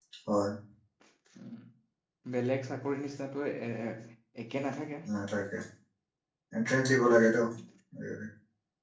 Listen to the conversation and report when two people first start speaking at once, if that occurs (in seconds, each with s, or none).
none